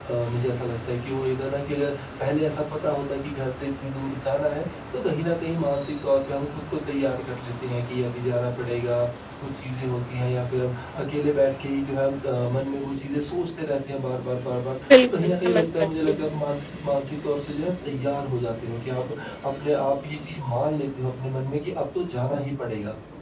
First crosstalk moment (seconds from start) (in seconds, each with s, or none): 14.9 s